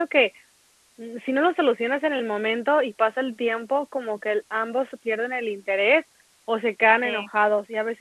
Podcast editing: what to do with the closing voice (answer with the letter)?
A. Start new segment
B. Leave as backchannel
B